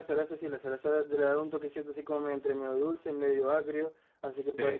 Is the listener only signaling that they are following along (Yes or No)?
Yes